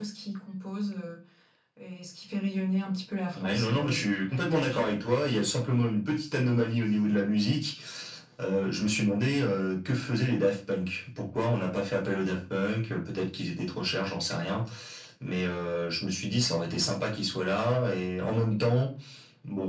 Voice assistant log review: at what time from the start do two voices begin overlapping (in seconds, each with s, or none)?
3.4 s